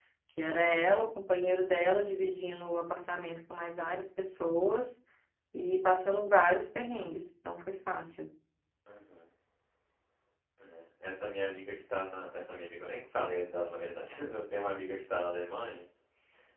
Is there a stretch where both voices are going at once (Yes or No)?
No